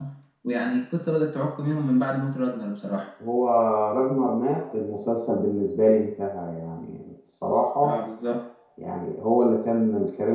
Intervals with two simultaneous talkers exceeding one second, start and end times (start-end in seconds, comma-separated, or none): none